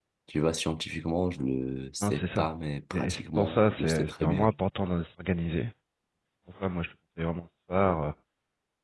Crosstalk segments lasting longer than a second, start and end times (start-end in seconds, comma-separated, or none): 2.9-4.5